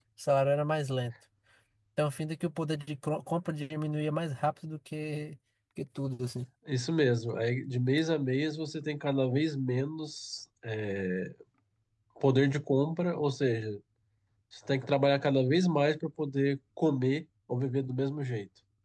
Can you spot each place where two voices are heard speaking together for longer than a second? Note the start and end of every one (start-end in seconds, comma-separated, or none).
none